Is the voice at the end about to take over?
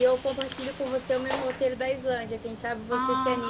Yes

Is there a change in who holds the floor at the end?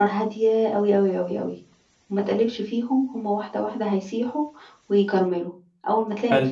No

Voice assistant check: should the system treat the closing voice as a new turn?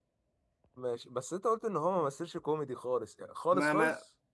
Yes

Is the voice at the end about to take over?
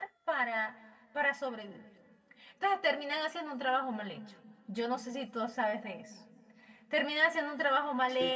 No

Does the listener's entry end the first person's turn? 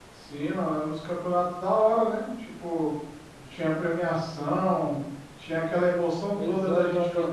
Yes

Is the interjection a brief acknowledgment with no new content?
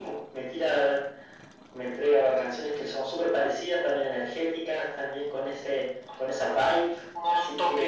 No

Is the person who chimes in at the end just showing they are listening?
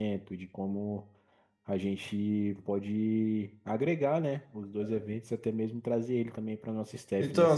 No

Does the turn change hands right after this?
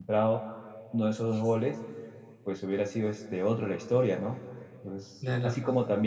No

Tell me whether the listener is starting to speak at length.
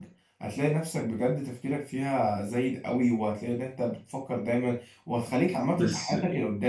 No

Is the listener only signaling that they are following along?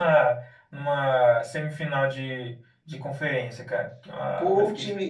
No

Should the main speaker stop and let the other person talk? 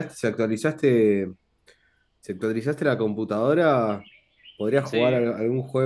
No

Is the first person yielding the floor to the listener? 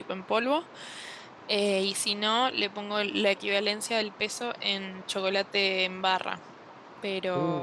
No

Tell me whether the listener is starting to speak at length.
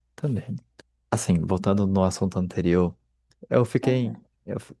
No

